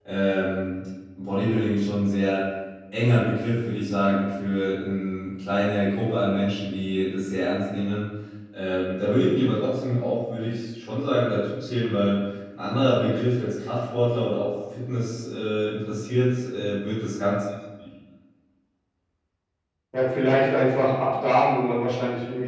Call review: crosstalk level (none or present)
none